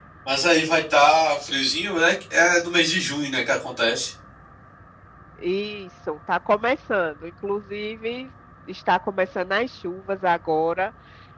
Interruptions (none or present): none